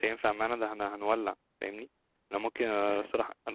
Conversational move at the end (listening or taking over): listening